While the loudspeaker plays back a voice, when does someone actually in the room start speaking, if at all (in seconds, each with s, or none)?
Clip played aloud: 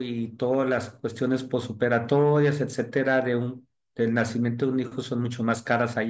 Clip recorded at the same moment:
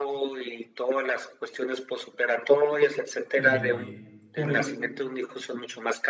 3.4 s